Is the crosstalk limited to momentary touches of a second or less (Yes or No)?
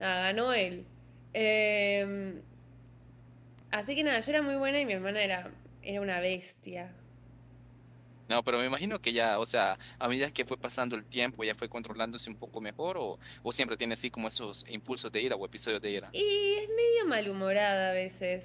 Yes